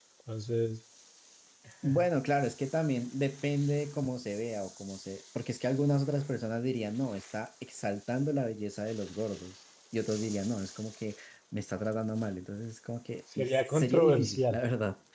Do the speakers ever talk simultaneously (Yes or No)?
Yes